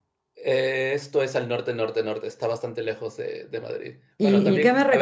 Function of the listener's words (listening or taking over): taking over